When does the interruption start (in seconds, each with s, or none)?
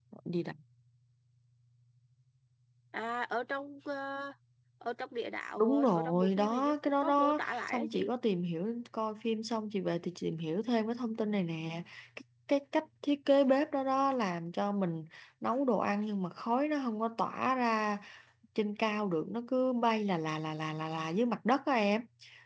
5.6 s